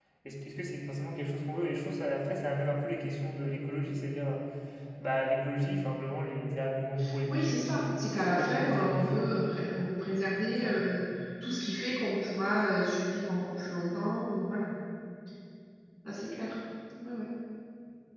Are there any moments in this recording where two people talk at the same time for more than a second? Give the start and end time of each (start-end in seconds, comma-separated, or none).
7.3-9.3